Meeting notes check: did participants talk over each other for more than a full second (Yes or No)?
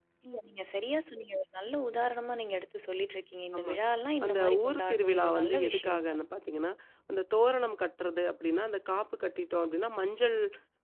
Yes